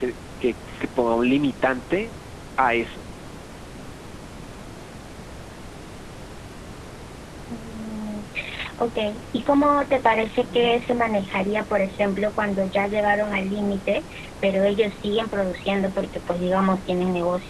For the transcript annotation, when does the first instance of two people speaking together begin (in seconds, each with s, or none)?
none